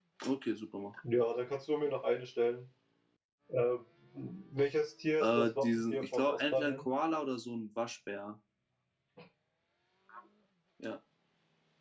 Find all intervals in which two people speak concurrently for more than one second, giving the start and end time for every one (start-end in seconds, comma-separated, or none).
5.2-6.8